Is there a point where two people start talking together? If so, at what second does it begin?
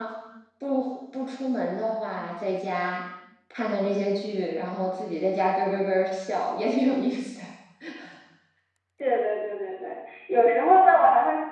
none

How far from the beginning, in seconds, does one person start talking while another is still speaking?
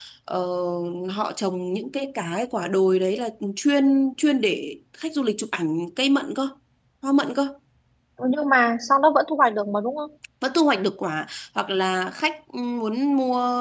none

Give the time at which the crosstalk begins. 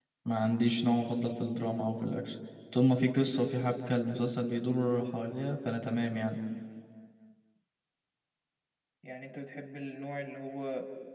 none

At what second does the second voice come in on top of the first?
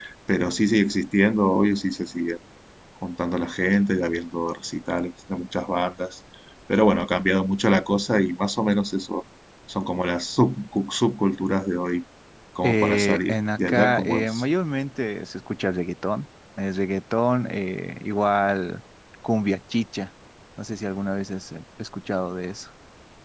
12.6 s

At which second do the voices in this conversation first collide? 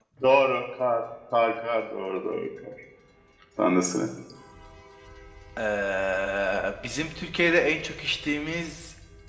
none

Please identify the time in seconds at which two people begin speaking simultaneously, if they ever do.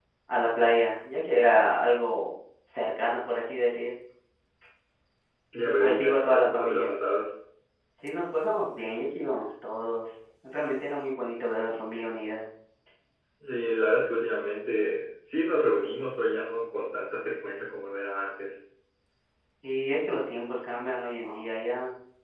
5.6 s

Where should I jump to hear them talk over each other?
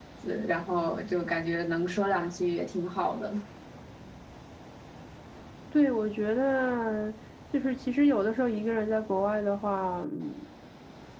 none

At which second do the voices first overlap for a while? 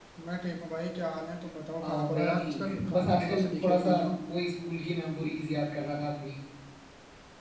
1.8 s

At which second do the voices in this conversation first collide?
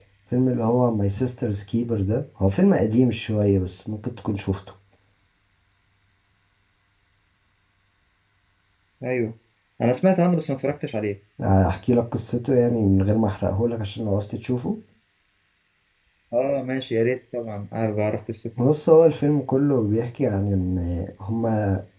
none

